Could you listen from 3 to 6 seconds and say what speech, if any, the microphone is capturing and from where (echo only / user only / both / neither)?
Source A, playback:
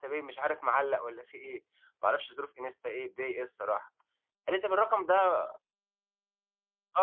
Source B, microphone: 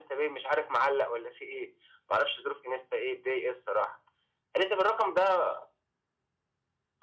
echo only